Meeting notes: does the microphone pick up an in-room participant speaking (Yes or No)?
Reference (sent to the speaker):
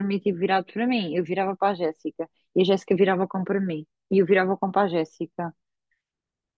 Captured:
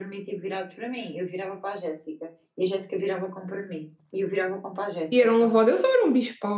Yes